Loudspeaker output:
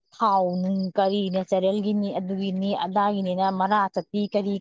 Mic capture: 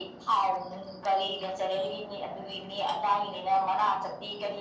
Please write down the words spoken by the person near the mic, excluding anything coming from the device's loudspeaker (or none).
none